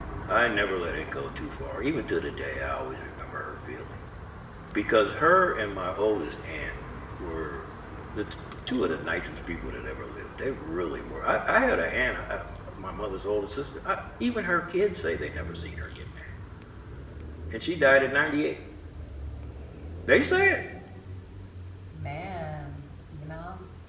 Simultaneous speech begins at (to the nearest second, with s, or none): none